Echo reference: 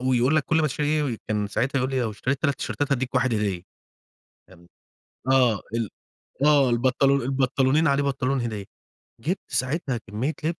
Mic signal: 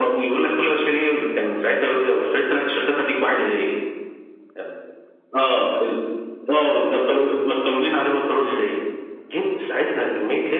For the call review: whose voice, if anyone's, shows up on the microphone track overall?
both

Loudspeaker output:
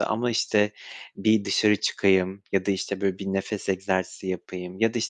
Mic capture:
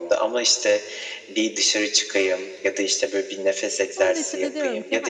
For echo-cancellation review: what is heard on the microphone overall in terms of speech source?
both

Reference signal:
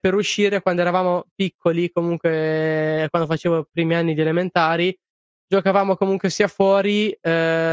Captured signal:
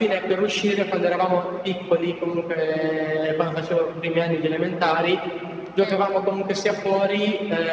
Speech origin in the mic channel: both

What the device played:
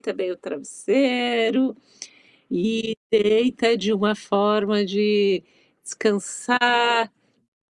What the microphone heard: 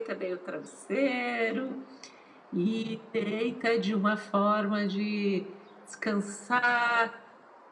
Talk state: echo only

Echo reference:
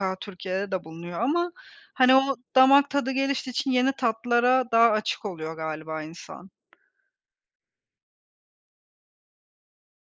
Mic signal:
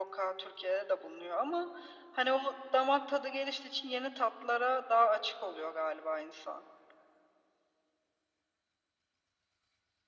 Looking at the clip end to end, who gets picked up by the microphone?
echo only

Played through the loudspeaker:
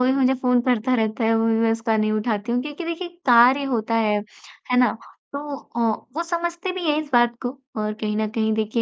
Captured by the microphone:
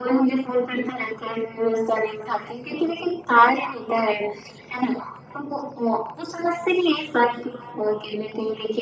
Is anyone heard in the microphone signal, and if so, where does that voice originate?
echo only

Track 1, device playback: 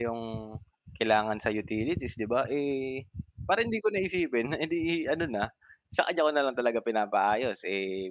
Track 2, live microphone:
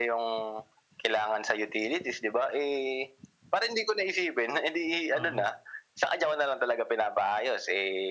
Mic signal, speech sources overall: both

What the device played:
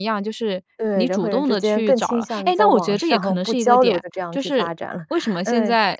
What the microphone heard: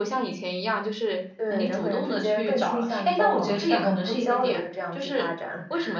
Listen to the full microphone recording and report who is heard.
both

